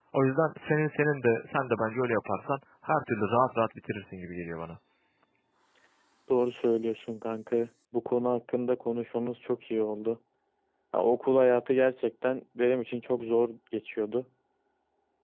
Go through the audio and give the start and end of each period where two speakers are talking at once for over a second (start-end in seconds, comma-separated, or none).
none